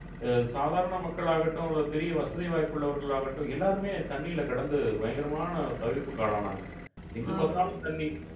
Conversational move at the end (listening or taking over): listening